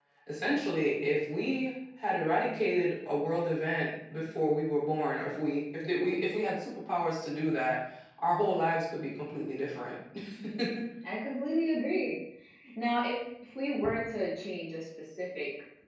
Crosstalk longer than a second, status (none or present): none